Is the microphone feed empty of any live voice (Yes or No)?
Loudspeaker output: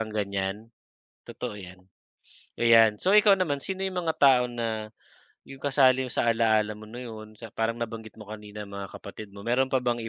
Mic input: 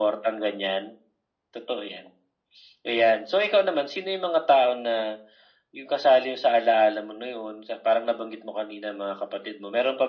Yes